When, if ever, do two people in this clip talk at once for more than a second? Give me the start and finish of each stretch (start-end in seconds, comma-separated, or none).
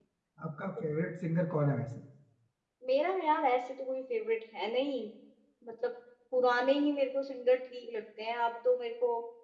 none